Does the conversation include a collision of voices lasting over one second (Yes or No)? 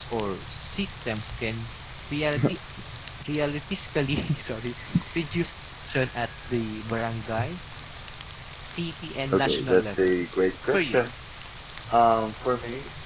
Yes